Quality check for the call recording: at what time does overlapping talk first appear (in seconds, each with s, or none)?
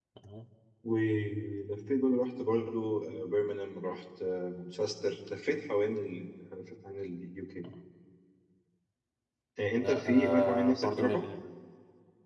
9.7 s